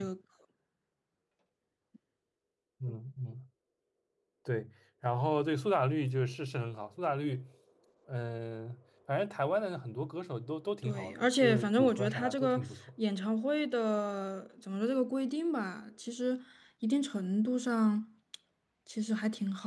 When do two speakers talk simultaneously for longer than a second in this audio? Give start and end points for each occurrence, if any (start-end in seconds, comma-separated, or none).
10.8-12.6